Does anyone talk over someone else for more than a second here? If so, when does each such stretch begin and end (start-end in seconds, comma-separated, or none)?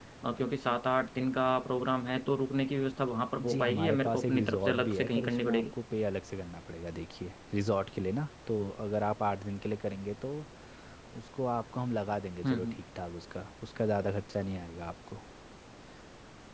3.4-5.6